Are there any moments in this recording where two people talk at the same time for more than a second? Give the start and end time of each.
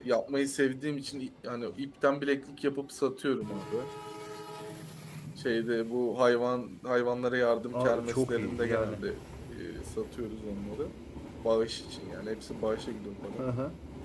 7.7-9.0

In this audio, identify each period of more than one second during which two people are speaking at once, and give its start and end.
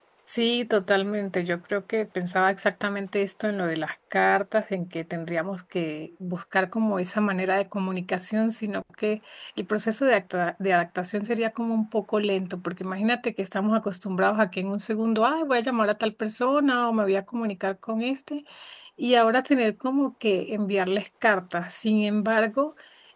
none

